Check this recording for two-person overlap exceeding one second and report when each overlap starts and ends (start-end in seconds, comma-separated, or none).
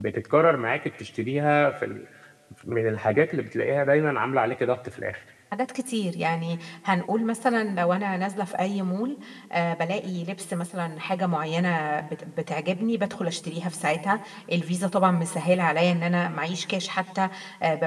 none